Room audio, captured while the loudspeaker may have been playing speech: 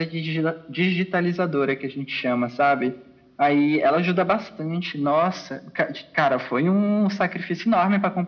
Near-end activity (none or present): none